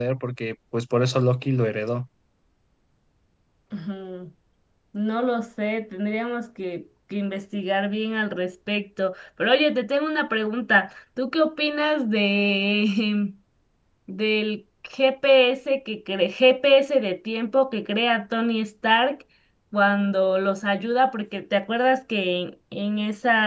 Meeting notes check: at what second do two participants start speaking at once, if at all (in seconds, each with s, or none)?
none